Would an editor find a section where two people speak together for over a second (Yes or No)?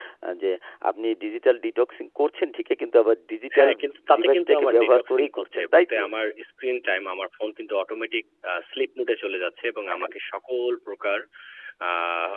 Yes